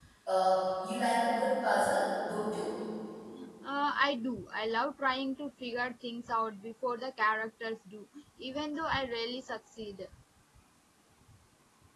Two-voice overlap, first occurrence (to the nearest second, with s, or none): none